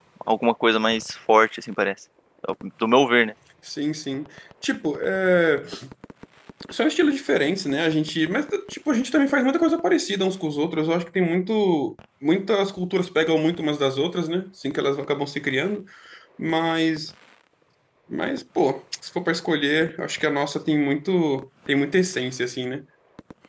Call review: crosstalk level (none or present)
none